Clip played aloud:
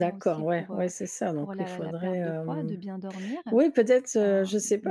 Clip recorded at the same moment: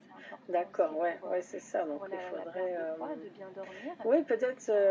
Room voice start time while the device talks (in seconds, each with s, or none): none